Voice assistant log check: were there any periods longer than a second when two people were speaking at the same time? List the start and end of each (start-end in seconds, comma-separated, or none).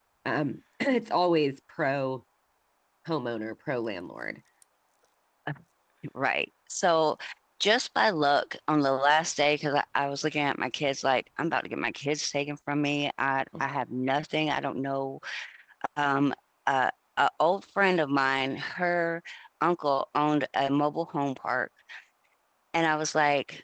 none